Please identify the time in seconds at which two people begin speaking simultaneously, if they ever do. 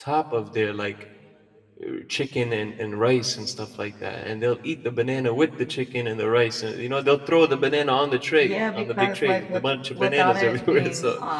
8.3 s

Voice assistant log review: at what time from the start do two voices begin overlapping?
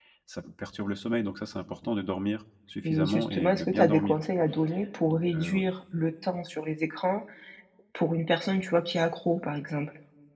2.8 s

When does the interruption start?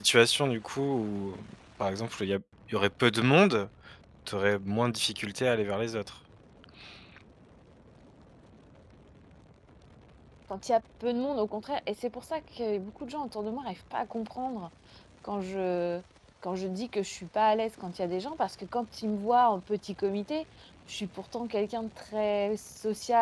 none

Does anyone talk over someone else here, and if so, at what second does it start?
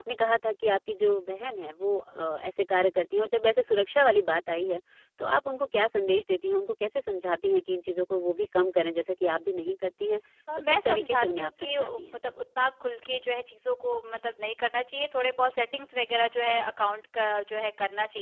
10.6 s

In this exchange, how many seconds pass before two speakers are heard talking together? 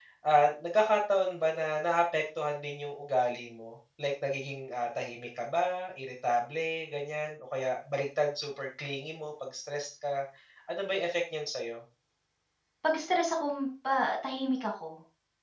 none

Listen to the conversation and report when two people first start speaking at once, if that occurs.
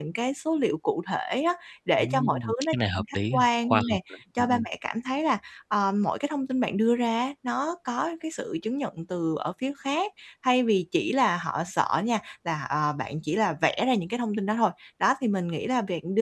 2.0 s

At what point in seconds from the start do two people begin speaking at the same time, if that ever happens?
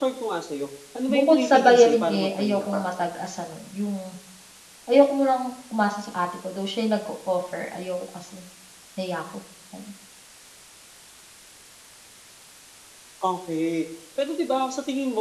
1.1 s

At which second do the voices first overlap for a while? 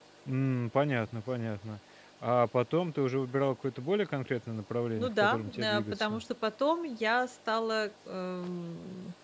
5.0 s

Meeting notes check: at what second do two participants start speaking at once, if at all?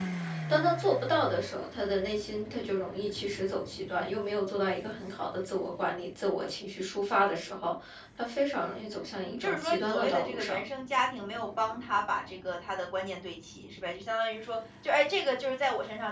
9.2 s

